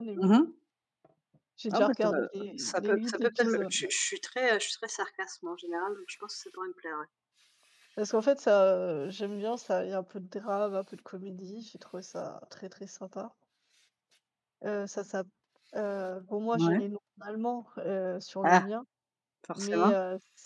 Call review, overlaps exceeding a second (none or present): present